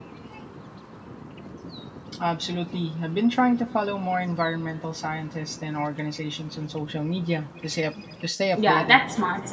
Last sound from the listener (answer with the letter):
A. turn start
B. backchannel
A